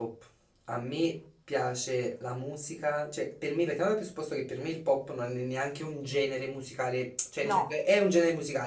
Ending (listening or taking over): listening